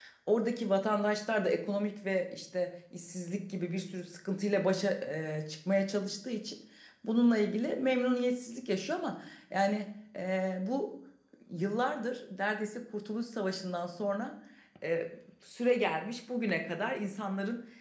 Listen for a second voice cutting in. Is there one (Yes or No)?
No